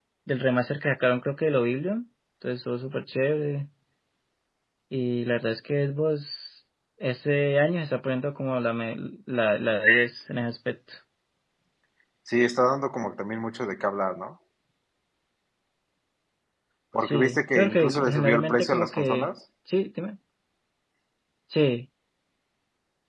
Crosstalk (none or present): present